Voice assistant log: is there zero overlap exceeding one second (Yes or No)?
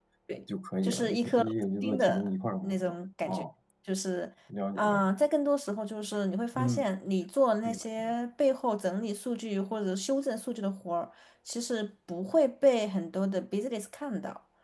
No